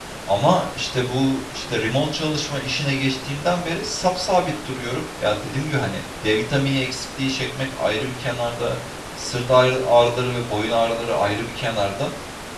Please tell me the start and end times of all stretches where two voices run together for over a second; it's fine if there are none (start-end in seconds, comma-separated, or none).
none